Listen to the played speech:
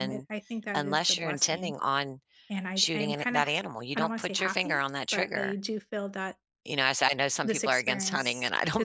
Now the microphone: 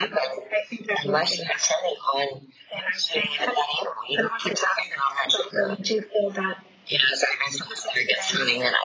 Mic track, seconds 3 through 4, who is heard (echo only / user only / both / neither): echo only